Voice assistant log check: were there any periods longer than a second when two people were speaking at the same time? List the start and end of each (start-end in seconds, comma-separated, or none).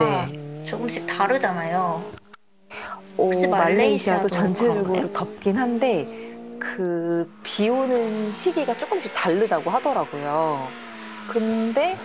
3.2-5.1